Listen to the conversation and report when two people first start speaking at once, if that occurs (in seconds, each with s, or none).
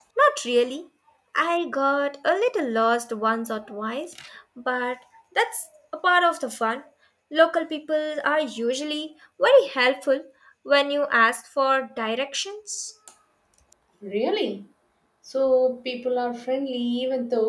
none